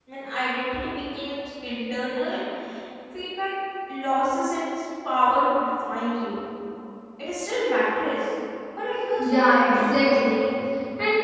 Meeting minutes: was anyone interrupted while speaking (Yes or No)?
Yes